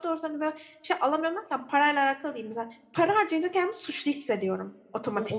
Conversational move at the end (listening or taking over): taking over